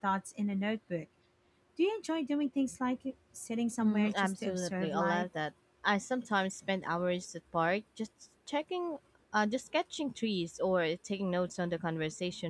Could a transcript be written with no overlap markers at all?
No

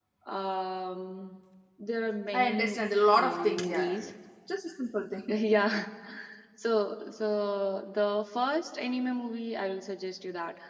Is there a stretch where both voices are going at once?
Yes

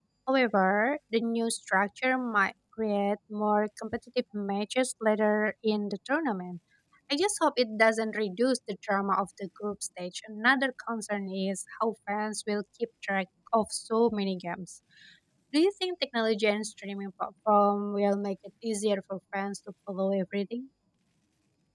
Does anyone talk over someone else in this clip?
No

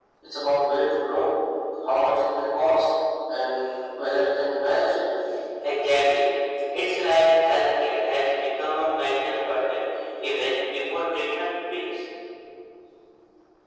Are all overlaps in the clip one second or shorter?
Yes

